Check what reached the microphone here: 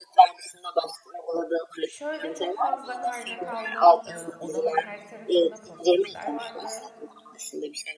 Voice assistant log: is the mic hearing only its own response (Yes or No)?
No